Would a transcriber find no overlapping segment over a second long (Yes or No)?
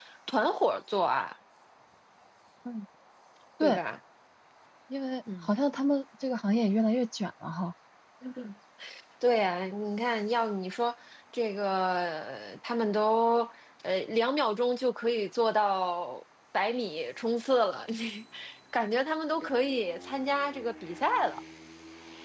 Yes